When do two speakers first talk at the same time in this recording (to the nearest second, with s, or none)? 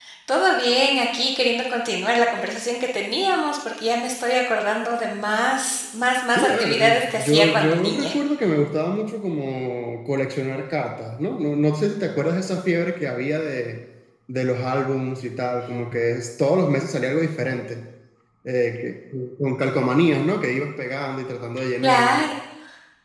6 s